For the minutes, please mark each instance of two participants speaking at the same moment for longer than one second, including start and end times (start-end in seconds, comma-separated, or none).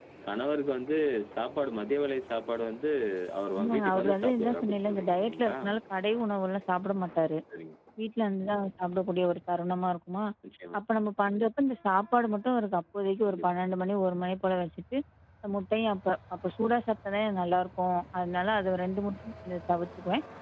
3.5-5.5